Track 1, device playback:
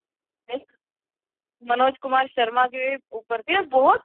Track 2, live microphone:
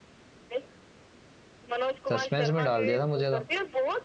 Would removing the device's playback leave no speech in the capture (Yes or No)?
No